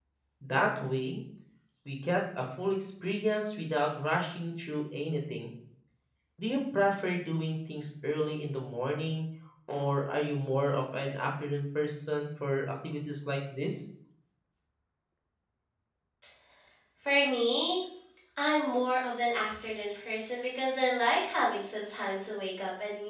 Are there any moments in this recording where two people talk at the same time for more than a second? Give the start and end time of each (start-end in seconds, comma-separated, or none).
none